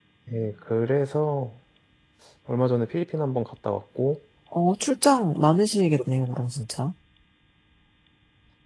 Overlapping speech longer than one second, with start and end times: none

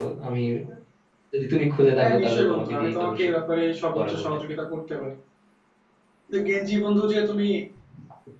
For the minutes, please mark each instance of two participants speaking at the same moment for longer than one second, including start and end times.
2.0-3.3

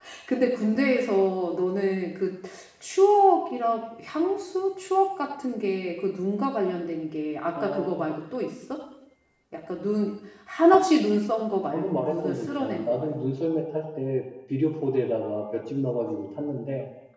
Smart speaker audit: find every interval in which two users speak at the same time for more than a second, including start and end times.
11.7-13.2

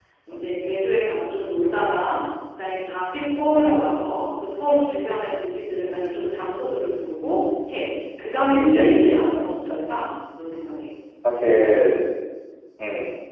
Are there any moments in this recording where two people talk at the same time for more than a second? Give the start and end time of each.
8.5-9.8

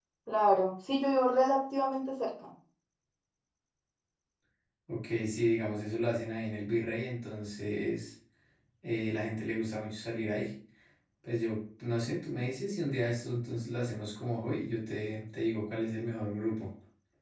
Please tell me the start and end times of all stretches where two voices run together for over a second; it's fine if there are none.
none

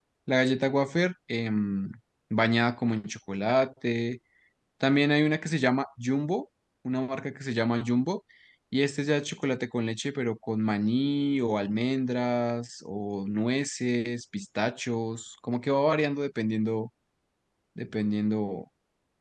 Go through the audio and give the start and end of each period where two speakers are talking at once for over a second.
none

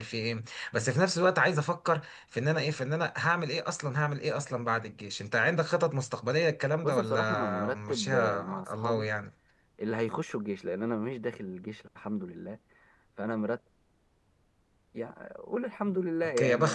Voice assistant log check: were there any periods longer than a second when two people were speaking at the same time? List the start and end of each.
6.8-9.1

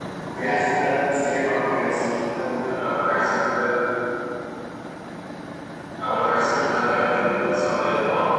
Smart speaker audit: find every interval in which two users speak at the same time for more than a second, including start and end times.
none

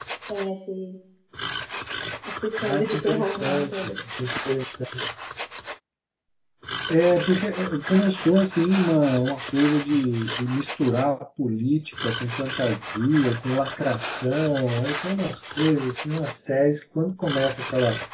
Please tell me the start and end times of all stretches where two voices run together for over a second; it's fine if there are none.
2.7-3.9

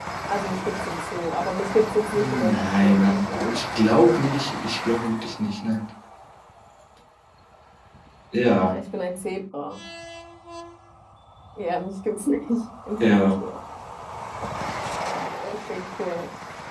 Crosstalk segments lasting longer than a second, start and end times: 2.1-3.5

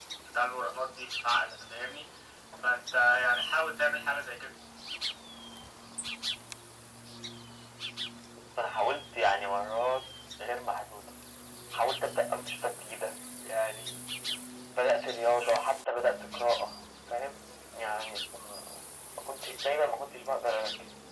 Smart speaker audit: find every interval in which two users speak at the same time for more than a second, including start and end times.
none

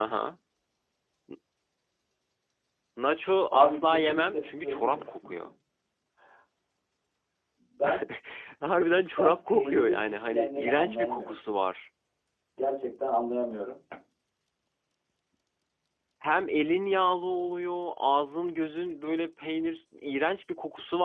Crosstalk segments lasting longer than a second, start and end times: 3.5-5.3, 9.2-11.3

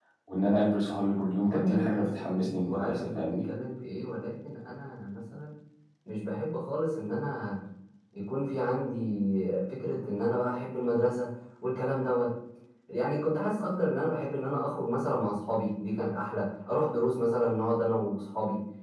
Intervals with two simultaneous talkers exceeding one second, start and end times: 1.5-3.2

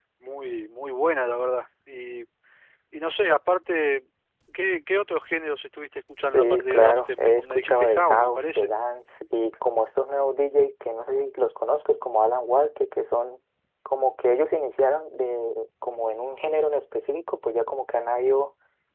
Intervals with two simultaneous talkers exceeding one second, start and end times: 6.2-8.7

